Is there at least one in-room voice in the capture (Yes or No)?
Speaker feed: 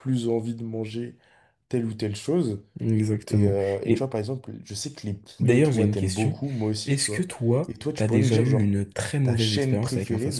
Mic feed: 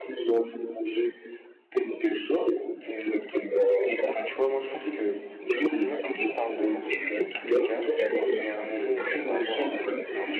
Yes